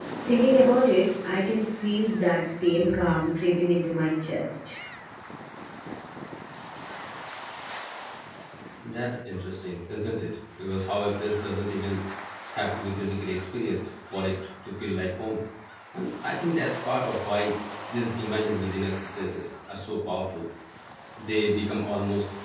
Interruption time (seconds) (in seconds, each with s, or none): none